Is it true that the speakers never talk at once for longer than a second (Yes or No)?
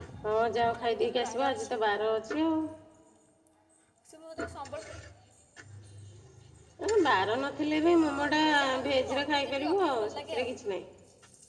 No